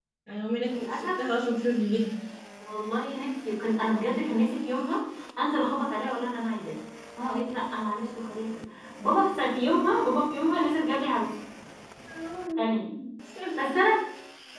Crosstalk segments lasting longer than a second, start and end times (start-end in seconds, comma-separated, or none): none